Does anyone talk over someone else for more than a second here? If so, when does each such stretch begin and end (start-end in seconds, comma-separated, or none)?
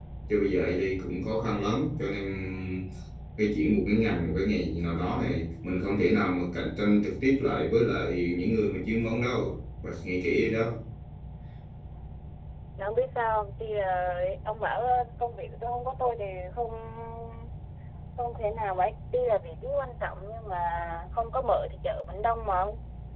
none